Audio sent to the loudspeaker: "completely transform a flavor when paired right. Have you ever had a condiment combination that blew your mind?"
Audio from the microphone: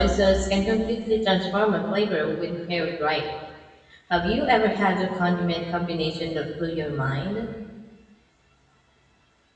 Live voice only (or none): none